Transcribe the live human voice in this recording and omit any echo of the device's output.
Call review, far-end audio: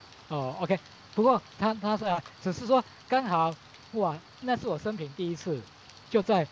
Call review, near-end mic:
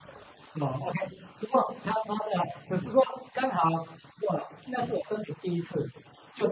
none

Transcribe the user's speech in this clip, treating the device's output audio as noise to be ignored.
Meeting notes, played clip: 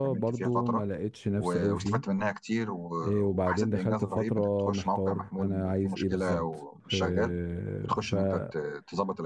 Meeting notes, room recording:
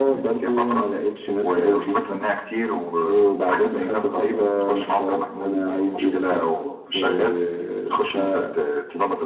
none

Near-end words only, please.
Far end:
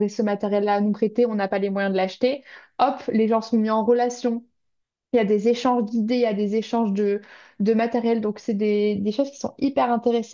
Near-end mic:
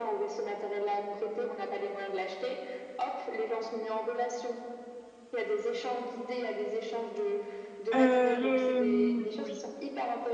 Euh, le, euh, oui.

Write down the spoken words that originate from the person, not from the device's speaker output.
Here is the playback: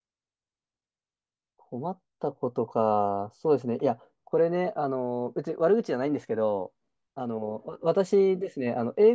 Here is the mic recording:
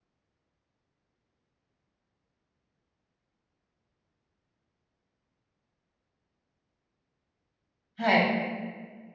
はい。

